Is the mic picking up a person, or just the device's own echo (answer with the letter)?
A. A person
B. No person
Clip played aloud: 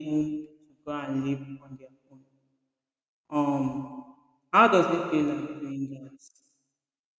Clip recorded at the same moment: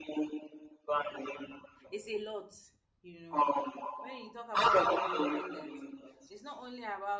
A